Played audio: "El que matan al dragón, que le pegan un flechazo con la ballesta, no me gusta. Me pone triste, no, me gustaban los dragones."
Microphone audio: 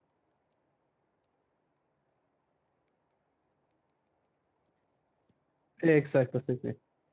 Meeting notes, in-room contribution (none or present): present